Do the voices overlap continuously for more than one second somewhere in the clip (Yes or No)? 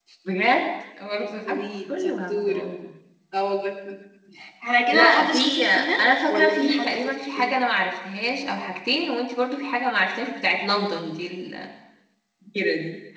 Yes